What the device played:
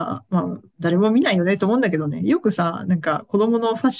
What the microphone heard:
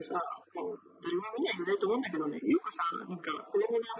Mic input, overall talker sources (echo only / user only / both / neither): echo only